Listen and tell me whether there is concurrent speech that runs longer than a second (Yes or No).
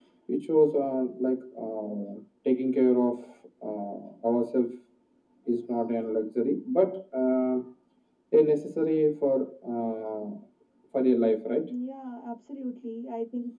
No